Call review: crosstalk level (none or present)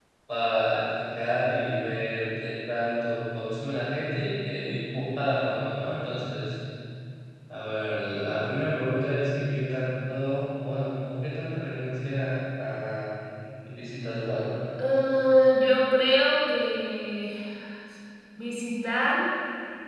none